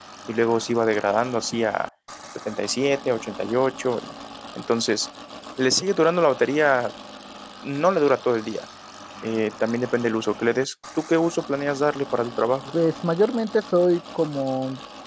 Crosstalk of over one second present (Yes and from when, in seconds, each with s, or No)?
No